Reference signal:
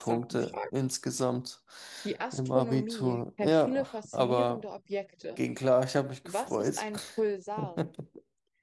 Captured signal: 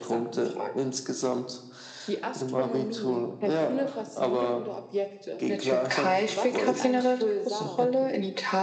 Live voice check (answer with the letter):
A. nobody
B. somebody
B